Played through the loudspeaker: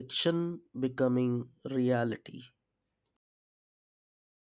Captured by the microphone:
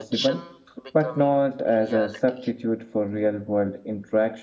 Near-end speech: present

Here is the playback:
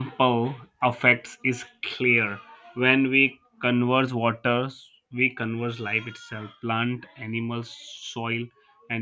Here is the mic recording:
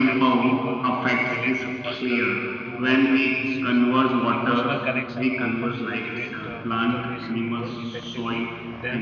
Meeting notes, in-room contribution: present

